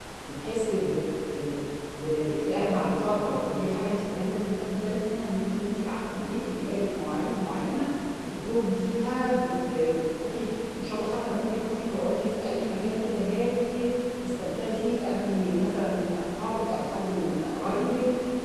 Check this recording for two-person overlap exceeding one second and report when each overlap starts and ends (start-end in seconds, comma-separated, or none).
none